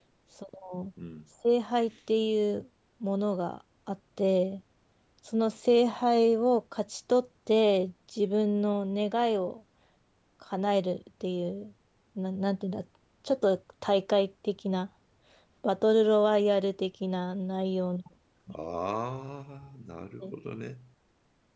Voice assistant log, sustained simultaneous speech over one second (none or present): none